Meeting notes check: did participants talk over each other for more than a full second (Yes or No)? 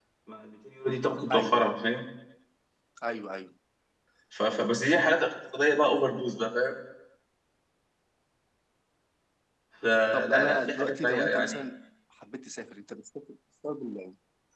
Yes